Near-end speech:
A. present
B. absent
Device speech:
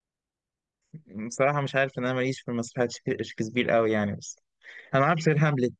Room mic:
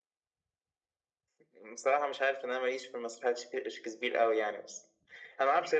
B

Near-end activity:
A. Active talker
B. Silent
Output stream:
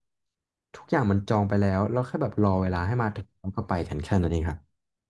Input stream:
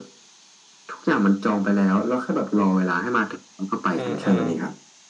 A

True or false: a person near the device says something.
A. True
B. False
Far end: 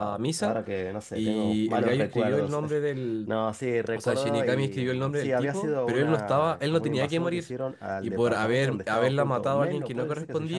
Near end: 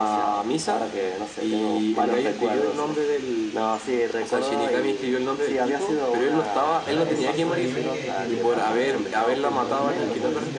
A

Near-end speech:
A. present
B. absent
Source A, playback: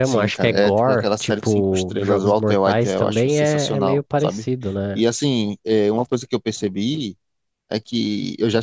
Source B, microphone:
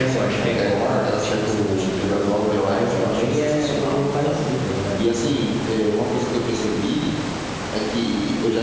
B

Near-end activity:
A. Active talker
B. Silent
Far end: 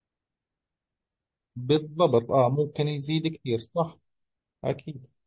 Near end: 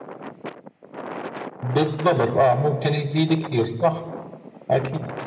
B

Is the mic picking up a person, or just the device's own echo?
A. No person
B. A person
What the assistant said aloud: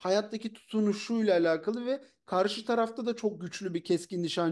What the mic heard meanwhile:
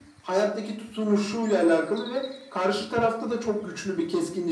A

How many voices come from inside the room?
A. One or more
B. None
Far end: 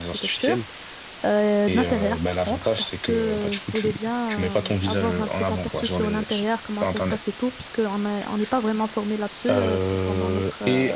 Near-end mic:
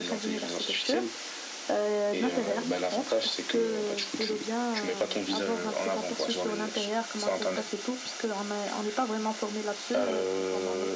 B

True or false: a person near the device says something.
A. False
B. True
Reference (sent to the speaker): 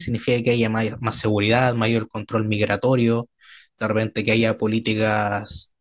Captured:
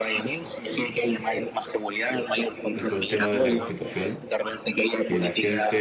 B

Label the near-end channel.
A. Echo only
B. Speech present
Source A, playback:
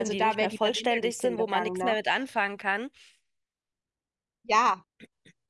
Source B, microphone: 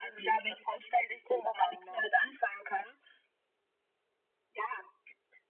A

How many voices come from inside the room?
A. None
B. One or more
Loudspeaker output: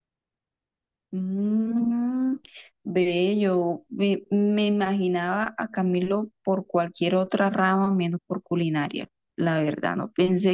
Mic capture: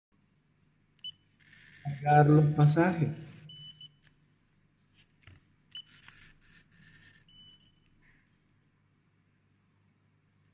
B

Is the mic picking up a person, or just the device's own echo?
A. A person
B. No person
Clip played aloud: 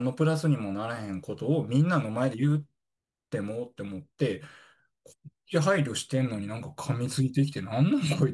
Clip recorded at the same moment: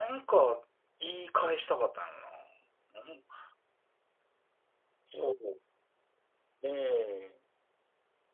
A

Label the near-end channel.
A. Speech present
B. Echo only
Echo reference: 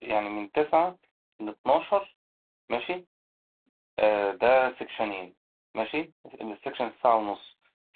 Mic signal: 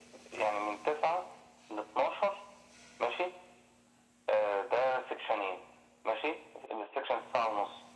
B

